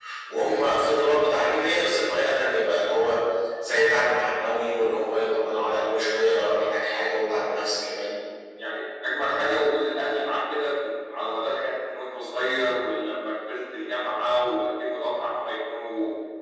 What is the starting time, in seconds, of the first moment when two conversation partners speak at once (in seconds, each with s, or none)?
none